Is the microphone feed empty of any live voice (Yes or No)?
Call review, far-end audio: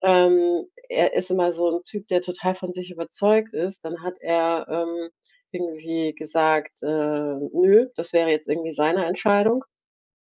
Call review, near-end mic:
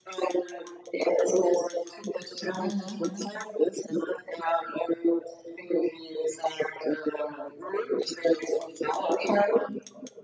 No